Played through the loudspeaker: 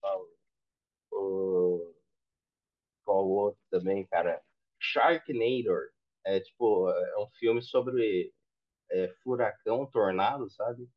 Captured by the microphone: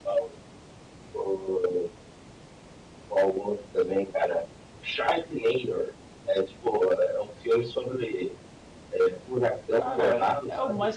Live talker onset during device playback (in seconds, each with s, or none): 9.8 s